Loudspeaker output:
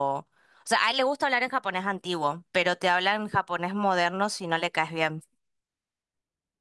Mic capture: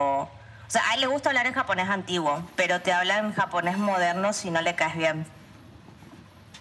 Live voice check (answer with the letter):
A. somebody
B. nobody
B